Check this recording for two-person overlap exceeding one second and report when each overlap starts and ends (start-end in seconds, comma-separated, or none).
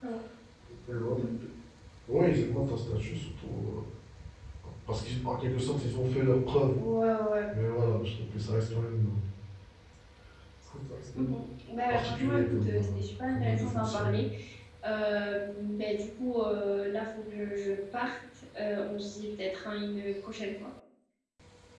11.9-14.2